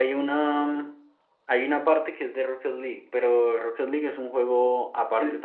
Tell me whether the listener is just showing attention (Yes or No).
No